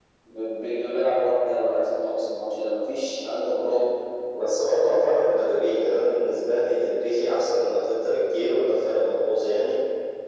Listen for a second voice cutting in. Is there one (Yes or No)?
No